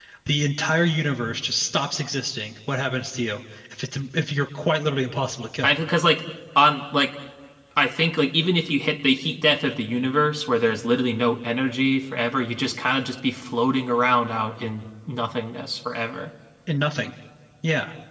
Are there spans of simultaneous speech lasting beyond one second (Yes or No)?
No